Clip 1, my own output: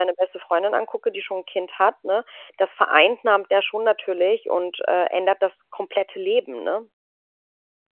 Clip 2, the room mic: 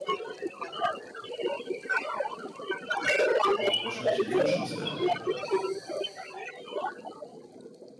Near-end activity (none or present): present